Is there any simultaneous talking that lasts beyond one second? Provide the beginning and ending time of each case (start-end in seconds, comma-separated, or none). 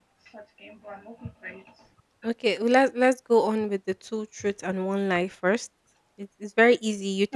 none